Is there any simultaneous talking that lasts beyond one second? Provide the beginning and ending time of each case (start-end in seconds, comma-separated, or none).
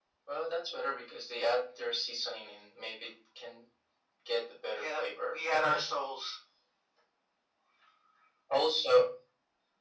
4.7-5.9